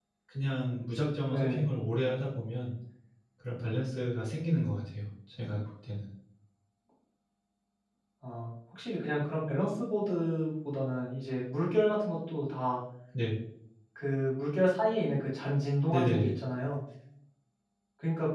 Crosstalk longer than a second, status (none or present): none